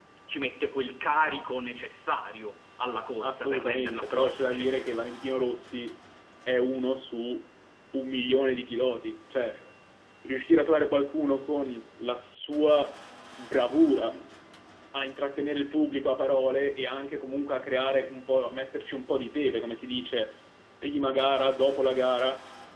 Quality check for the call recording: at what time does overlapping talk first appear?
3.2 s

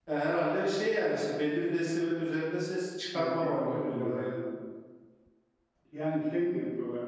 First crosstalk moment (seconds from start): 3.1 s

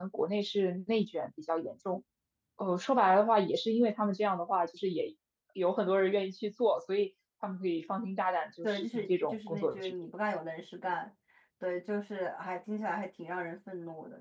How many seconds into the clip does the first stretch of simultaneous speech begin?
8.6 s

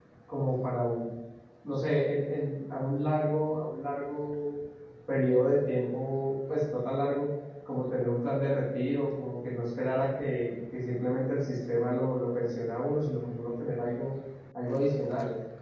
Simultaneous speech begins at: none

